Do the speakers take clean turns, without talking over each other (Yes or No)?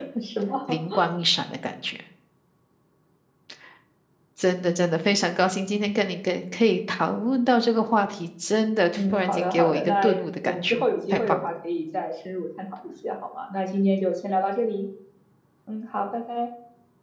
No